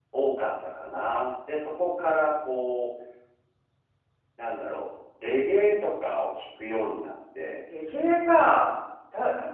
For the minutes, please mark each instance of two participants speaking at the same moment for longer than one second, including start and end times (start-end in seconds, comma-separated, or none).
none